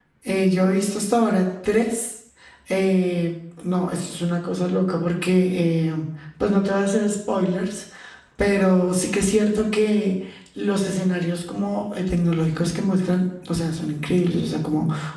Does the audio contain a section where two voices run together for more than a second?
No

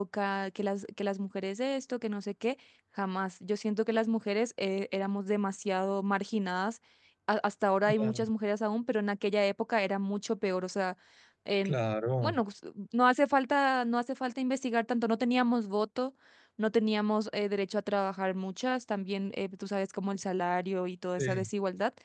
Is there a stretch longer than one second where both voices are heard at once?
No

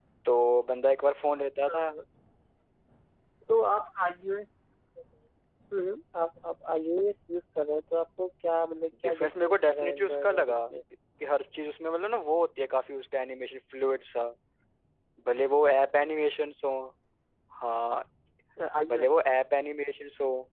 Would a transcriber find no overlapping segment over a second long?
No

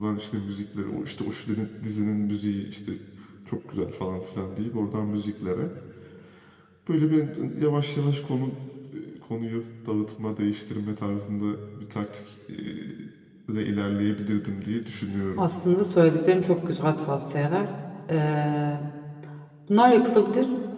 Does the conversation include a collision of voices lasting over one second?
No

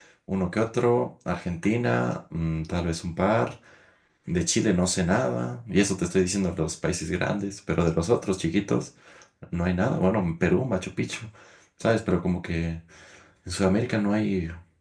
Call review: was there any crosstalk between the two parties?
No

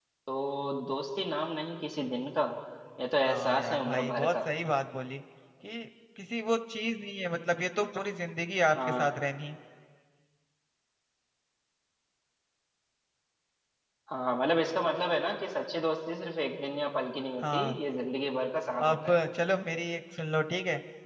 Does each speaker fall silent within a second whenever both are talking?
No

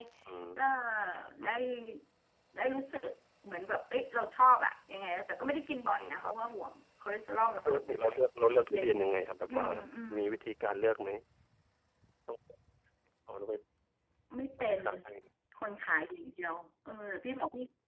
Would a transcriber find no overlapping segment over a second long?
Yes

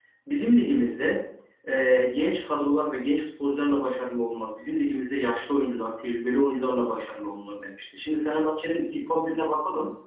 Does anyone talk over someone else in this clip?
No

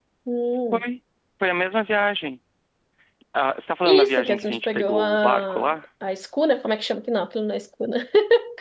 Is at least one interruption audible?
Yes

